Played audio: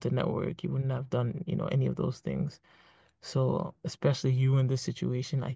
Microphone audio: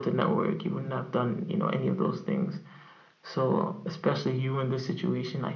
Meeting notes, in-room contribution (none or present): none